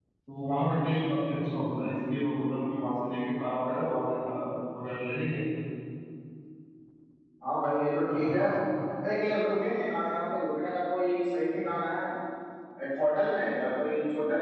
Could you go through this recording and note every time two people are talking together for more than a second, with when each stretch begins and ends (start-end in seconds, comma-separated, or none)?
none